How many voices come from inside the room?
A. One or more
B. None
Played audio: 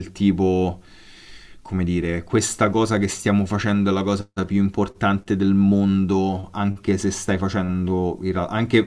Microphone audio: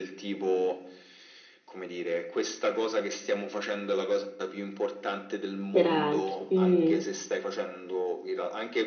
A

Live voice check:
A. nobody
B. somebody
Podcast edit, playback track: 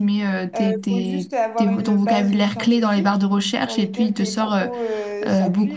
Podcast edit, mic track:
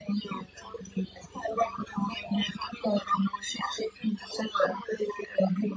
A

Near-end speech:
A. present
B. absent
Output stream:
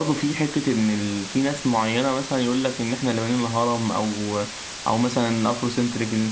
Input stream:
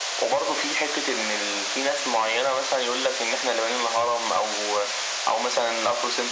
B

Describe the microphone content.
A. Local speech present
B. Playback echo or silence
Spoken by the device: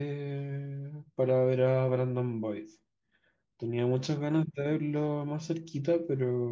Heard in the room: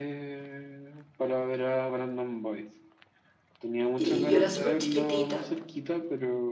A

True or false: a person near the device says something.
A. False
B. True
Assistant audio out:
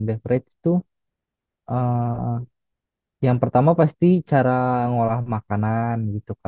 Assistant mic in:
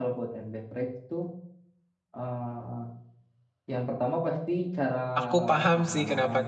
B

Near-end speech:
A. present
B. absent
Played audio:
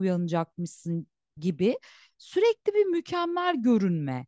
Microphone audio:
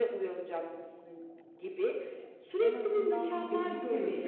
A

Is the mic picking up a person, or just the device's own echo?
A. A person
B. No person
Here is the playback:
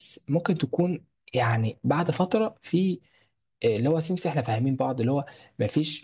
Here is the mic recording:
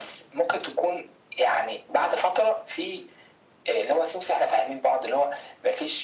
B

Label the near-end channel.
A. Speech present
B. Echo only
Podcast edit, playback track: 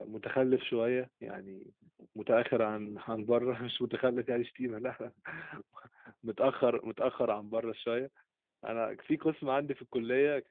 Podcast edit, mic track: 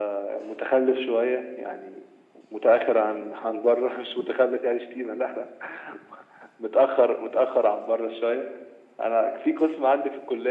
B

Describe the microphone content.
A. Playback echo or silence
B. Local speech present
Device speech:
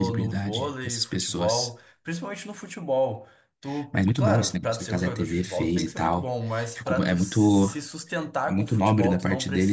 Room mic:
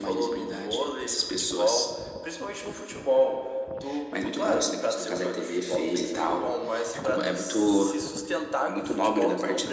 A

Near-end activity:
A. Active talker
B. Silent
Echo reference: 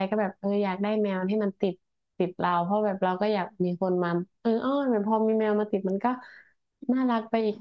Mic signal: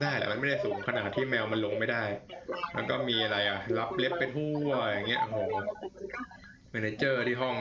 A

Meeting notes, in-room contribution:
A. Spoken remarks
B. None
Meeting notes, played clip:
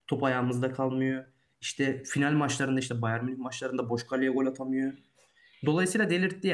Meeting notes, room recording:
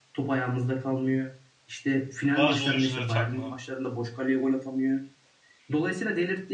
A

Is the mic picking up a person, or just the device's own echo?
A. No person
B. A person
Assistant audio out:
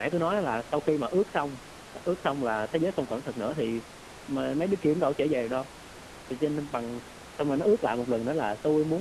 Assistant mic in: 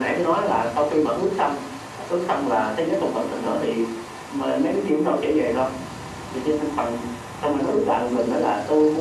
A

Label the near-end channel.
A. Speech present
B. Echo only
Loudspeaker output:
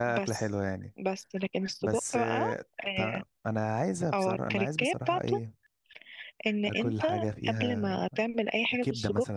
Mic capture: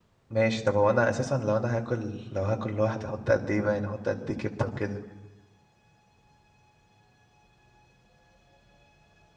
A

